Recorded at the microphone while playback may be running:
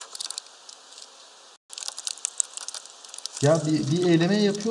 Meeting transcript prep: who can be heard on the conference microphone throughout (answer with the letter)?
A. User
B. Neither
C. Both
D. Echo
A